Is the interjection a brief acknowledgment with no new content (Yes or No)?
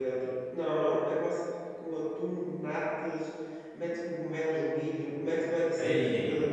Yes